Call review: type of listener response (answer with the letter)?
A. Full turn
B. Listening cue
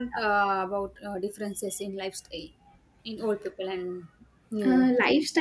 A